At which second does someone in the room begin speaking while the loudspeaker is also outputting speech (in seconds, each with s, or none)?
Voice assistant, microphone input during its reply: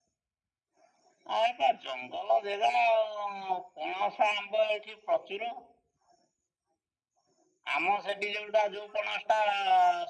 none